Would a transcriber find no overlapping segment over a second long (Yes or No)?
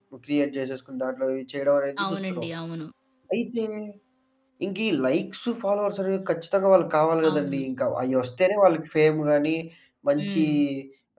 Yes